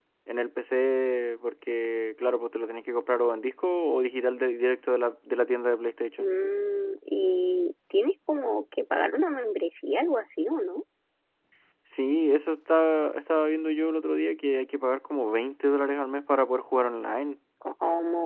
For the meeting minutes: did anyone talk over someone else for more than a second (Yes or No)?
No